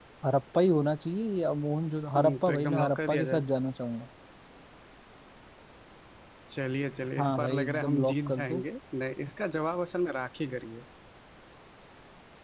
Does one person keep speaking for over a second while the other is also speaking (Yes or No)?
Yes